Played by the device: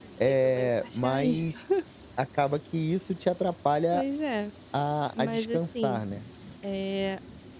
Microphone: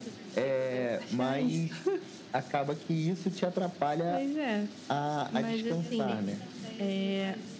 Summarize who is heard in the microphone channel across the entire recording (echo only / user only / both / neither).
both